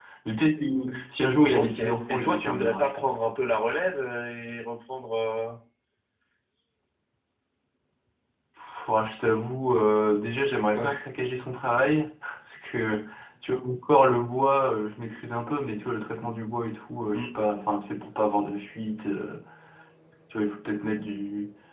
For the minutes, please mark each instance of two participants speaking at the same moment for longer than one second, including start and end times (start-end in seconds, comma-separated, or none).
1.5-3.1